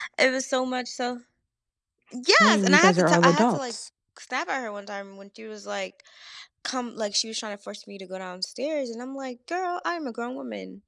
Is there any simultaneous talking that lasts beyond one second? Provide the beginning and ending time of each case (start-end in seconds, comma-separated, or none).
2.4-3.7